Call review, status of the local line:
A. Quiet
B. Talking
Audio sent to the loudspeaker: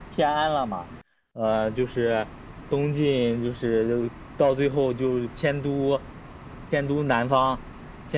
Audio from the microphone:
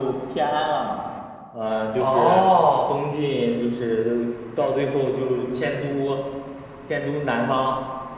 B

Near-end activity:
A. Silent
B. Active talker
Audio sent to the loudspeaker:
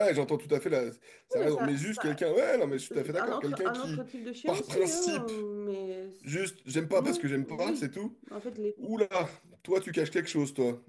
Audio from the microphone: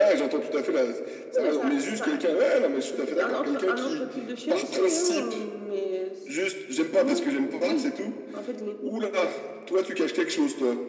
A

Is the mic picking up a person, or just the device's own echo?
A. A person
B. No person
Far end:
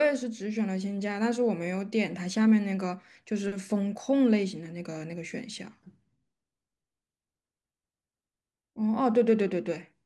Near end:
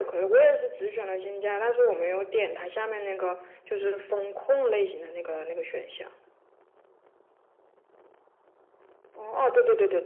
B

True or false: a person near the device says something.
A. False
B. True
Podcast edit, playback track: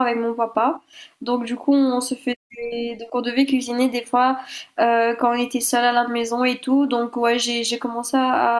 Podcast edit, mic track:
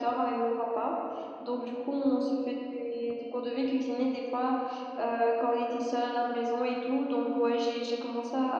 A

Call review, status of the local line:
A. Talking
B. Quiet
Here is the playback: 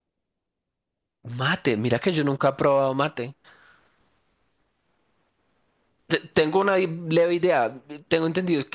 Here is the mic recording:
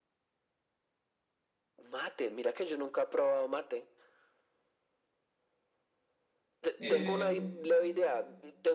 A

